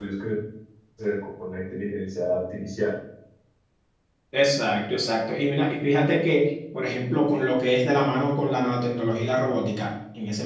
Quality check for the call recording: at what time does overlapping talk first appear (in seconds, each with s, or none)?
none